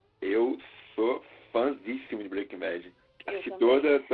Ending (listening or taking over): listening